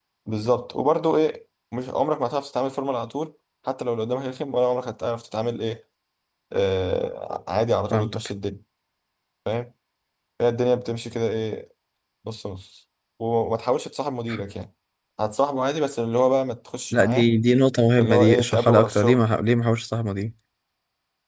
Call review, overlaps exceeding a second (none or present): present